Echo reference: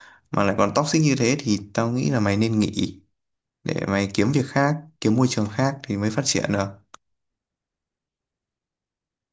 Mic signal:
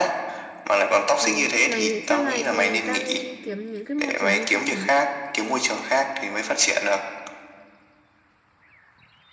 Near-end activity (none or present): present